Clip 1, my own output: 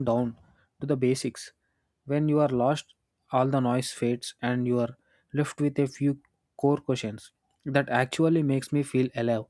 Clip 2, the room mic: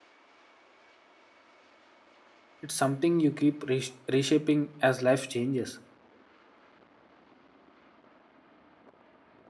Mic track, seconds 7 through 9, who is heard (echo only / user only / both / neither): neither